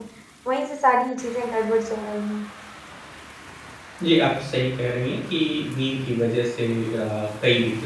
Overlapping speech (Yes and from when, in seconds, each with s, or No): No